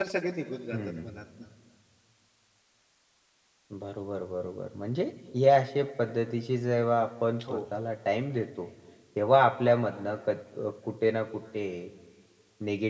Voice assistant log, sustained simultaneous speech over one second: none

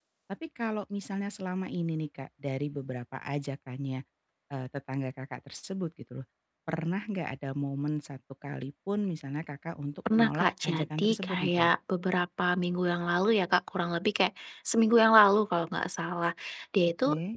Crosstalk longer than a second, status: present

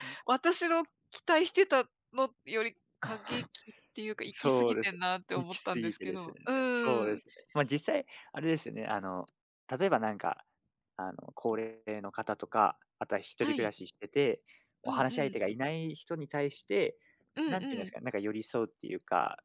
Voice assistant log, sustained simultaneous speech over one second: present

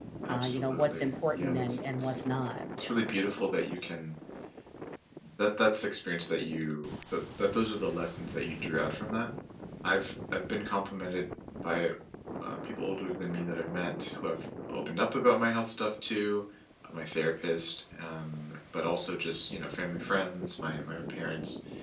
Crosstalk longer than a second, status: present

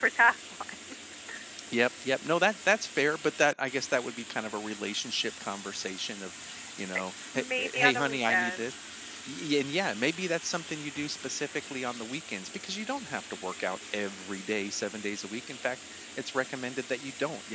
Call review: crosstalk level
present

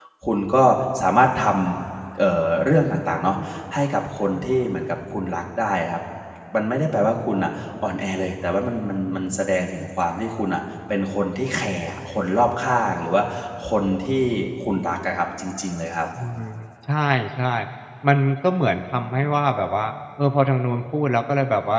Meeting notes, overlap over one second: none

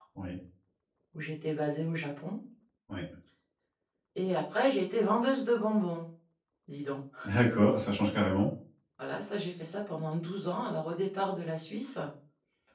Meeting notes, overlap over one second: none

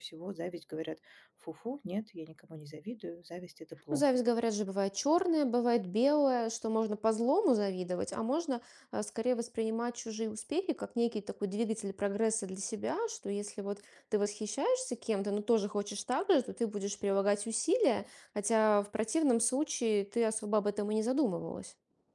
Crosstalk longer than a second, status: none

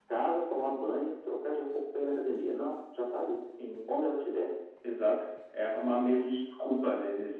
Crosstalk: none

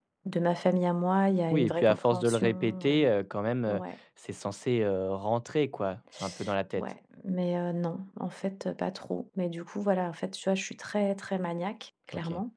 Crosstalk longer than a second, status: present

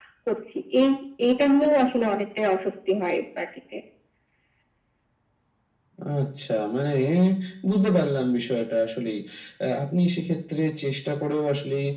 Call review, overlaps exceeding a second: none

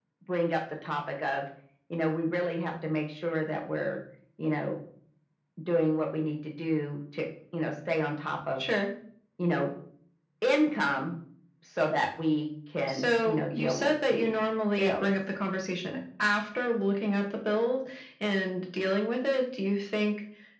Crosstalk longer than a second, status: present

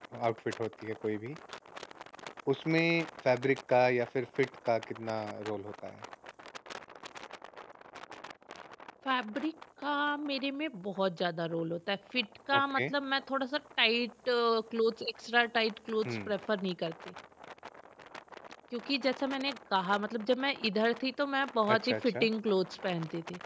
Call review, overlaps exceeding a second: none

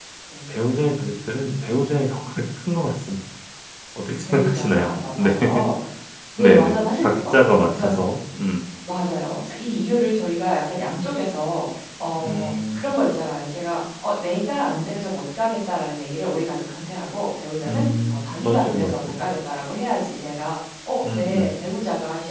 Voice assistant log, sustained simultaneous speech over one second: present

